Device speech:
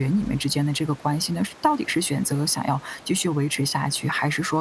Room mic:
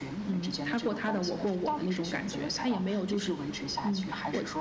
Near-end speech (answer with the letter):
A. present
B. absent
A